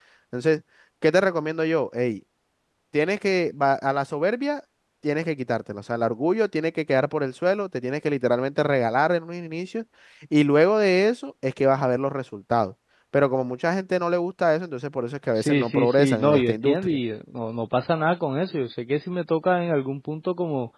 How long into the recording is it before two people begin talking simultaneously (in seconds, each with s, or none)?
15.4 s